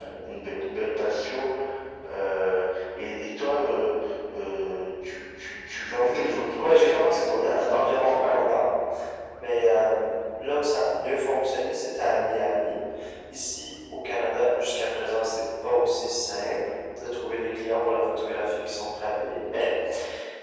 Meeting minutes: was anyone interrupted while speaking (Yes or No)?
Yes